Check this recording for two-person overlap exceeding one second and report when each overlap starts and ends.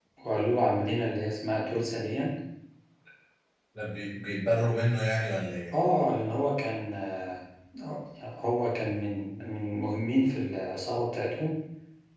none

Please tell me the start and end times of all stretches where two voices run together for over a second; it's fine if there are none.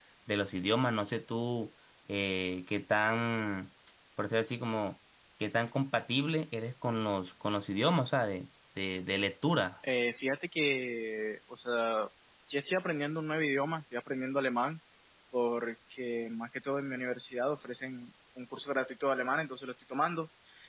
none

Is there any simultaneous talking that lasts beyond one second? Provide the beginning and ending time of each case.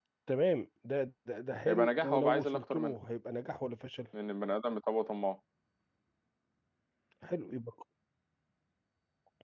1.7-3.0

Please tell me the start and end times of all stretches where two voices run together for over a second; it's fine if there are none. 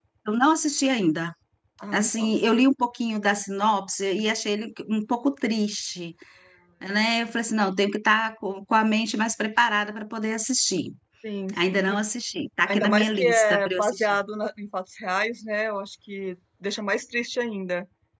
12.6-14.2

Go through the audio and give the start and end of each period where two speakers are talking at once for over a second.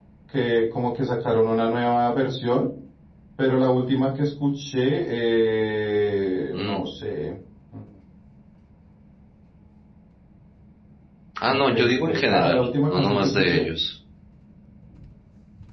11.5-13.7

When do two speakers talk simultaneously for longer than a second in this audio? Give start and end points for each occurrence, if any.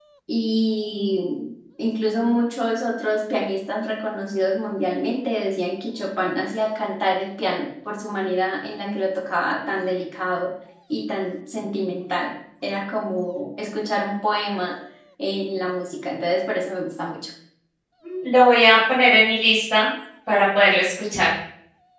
none

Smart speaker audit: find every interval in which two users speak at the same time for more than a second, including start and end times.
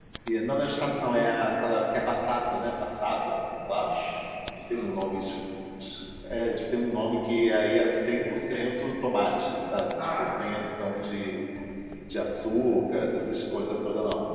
none

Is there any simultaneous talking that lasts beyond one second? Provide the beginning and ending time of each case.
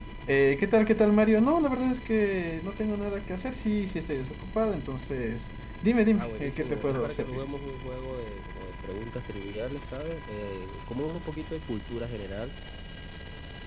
6.1-7.4

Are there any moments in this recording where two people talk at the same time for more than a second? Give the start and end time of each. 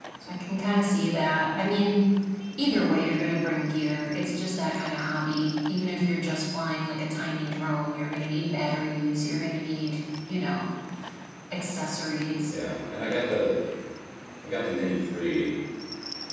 none

